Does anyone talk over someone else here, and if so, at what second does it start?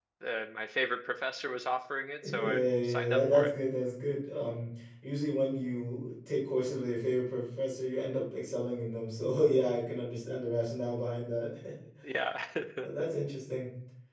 2 s

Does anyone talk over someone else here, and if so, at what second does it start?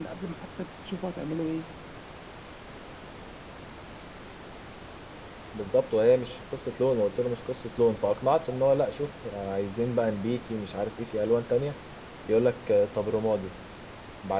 none

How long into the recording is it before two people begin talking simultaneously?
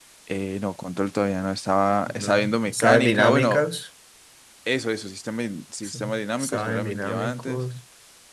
2 s

